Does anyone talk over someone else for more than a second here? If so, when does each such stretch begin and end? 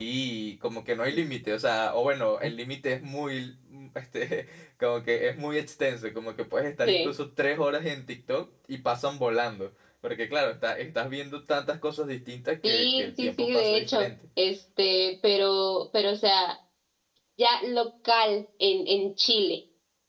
12.7-14.1

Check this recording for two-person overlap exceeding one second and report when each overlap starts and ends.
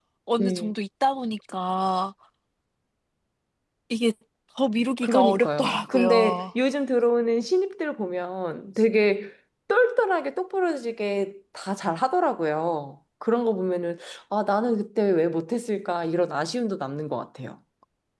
5.0-6.5

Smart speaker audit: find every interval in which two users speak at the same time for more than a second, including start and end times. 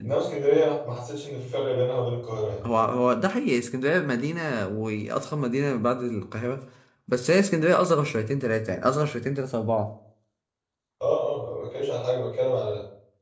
none

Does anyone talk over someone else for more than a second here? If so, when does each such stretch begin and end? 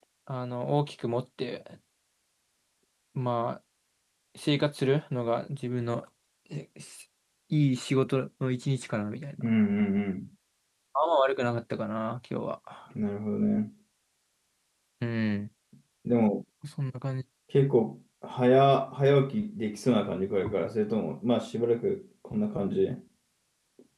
none

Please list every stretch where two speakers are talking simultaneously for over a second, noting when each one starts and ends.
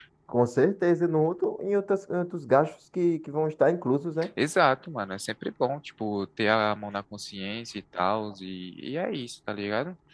none

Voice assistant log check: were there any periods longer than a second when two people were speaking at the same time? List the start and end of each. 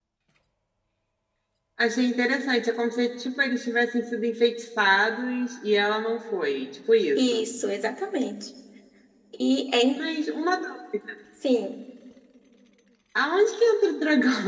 none

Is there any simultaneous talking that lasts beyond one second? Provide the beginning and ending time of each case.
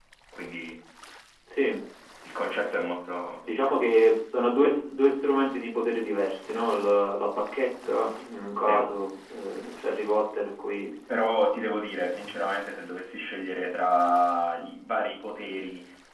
none

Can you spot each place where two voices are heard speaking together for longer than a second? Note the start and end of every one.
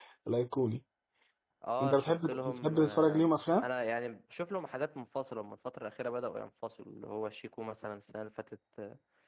1.8-3.7

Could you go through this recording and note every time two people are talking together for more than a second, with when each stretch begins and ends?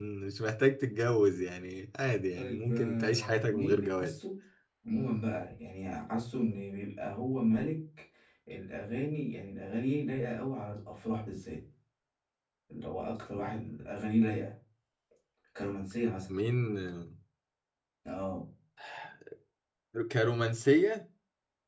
2.4-4.1

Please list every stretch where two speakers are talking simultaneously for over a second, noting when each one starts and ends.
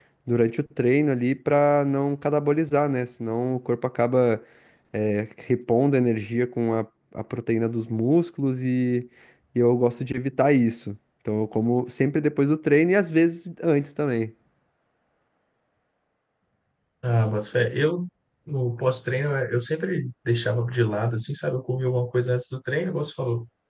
none

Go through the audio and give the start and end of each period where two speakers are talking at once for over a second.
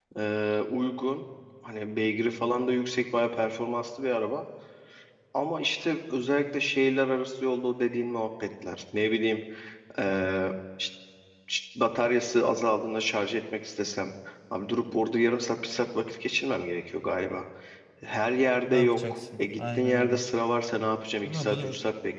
18.6-20.2

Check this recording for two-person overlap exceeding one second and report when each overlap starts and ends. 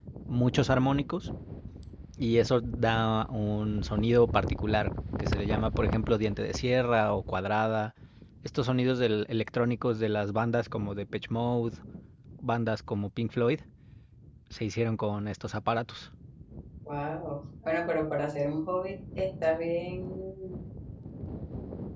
none

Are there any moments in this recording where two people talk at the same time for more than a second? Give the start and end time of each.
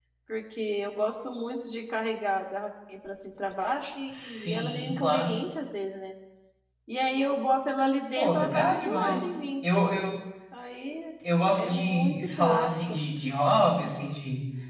4.1-5.3, 8.2-9.4, 11.6-13.0

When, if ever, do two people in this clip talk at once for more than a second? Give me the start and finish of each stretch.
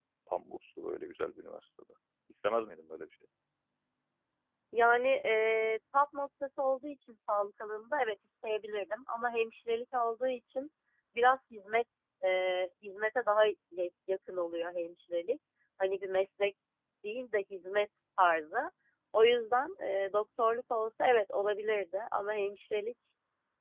none

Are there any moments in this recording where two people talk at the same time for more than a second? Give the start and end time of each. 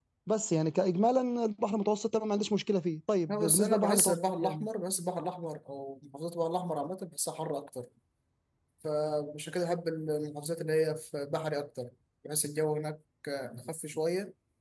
3.3-4.7

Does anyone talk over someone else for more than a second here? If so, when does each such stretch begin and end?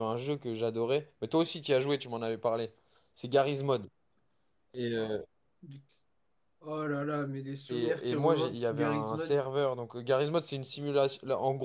7.7-9.4

